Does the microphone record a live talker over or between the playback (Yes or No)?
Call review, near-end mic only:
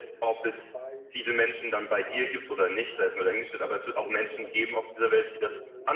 Yes